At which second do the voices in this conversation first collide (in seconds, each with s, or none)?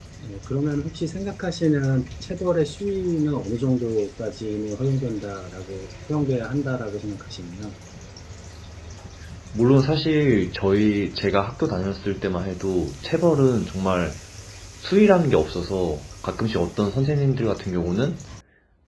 none